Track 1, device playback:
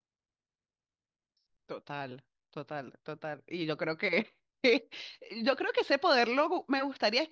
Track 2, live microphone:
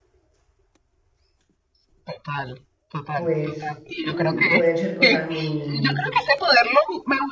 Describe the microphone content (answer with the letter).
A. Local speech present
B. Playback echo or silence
A